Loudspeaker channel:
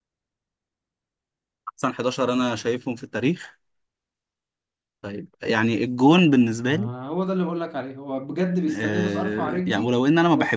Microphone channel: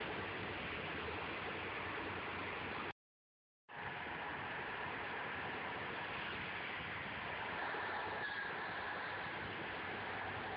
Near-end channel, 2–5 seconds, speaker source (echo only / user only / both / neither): neither